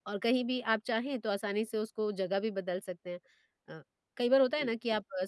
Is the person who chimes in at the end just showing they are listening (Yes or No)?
Yes